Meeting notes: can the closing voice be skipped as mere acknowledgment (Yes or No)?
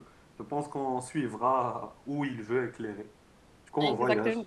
Yes